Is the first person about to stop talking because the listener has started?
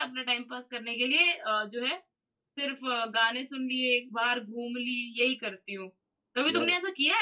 No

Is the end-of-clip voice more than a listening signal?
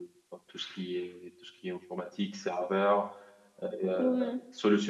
No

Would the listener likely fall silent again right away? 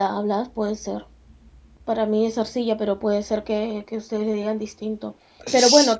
Yes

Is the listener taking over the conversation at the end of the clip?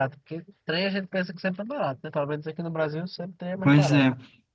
Yes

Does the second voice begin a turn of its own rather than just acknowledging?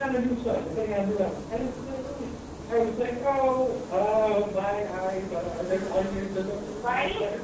Yes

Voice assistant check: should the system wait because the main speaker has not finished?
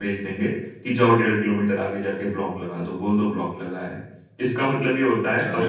Yes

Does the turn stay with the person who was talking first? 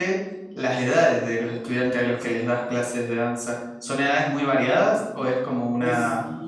No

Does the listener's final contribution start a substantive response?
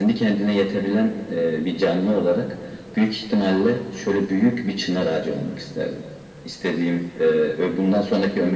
No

